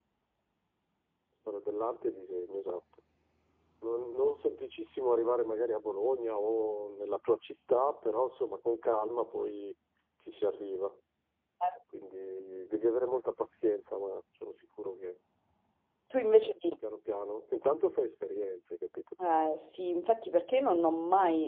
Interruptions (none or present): none